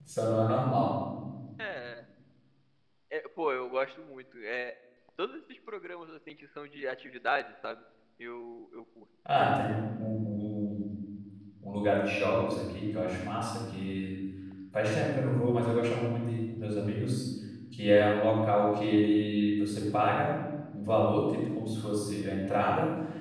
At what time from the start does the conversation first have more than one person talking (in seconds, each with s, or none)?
none